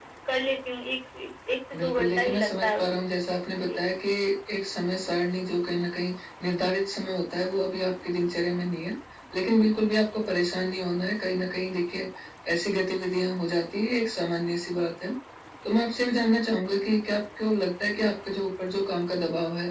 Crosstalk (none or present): present